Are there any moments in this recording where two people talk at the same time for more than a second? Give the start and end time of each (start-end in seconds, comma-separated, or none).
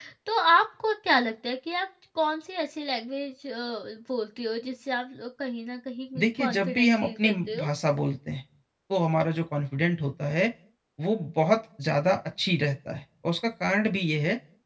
6.2-7.7